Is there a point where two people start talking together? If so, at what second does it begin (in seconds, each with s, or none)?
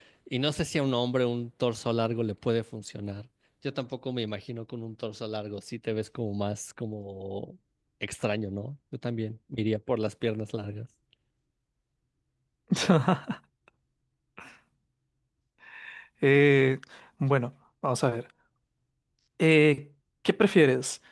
none